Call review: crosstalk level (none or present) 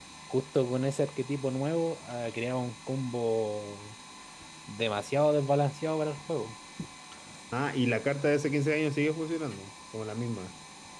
none